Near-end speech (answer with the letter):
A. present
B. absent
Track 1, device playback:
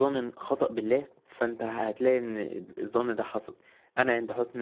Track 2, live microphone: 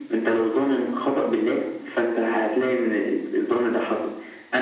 B